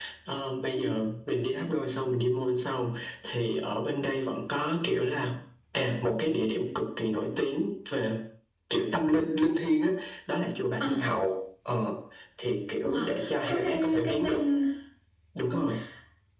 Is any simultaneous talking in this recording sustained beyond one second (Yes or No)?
Yes